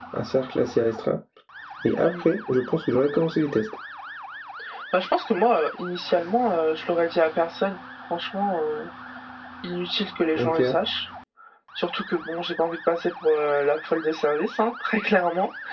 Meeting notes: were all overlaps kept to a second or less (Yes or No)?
Yes